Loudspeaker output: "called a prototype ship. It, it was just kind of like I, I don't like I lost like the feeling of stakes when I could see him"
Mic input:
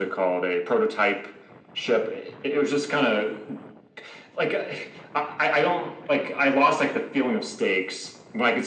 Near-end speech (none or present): none